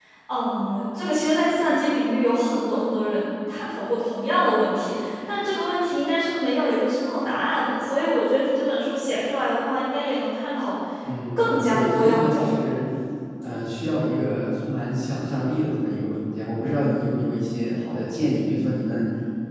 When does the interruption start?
11 s

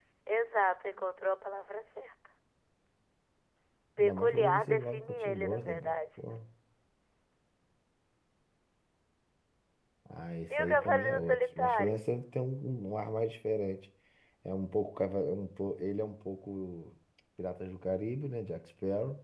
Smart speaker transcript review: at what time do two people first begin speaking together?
4 s

